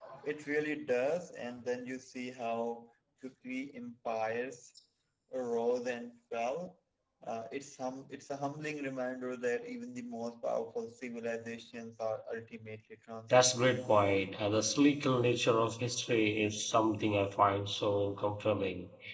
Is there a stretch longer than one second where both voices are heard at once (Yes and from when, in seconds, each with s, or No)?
No